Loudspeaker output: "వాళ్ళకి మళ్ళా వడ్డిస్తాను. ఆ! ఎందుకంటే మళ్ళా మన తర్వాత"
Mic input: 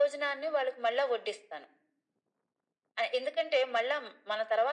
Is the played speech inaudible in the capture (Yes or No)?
No